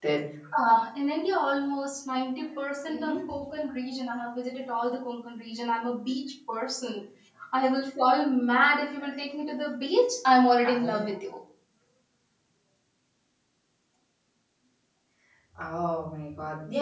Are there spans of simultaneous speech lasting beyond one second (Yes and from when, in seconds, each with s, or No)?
No